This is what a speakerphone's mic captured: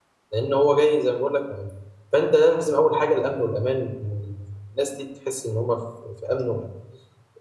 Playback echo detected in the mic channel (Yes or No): No